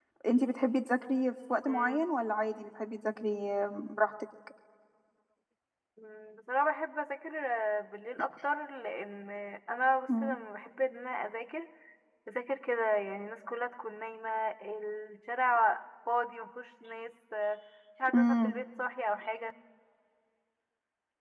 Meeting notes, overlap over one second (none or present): none